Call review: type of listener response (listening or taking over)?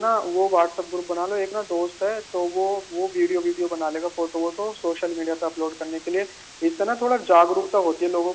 listening